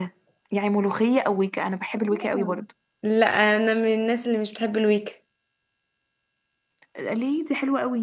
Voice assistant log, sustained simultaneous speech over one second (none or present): none